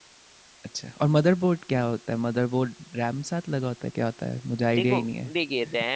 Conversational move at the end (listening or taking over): taking over